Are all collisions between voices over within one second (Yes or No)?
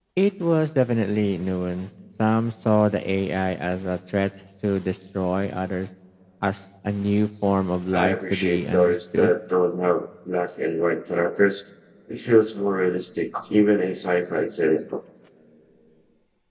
No